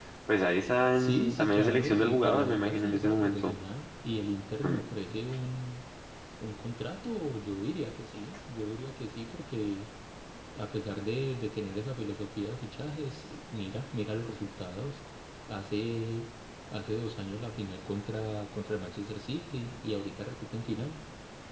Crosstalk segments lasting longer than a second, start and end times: 0.9-3.6

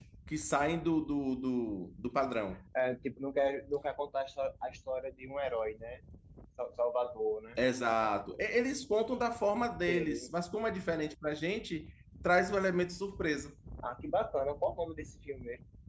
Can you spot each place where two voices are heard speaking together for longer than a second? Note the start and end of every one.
none

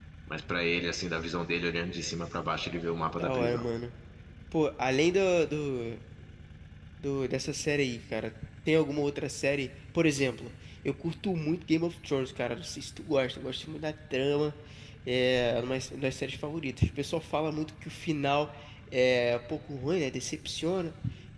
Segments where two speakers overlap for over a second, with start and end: none

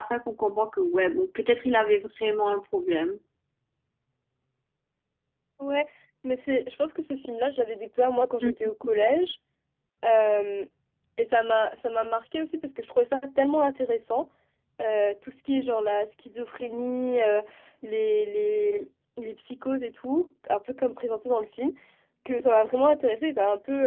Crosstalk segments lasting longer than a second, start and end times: none

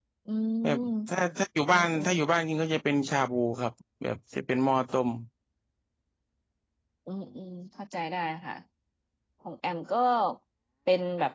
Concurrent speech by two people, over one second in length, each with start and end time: none

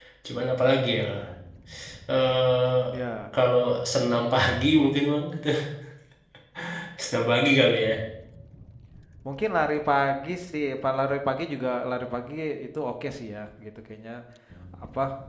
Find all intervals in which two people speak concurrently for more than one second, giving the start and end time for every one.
none

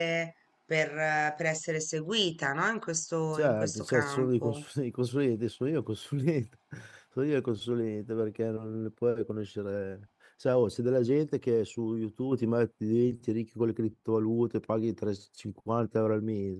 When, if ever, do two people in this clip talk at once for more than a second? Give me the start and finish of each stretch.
3.3-4.6

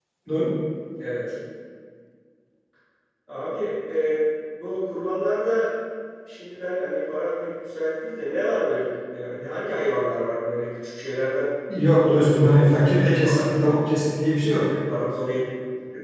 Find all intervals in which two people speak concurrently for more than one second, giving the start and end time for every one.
11.8-13.8

